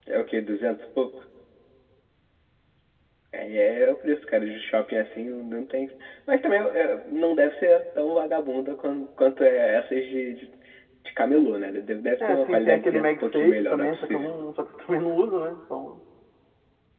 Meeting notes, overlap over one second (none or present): present